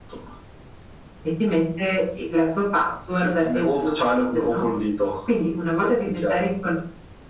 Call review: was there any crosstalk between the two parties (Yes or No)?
Yes